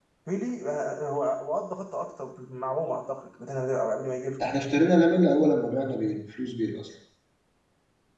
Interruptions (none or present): none